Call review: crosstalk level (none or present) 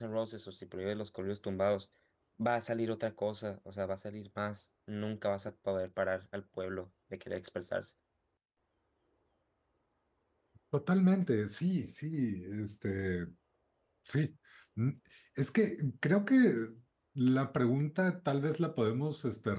none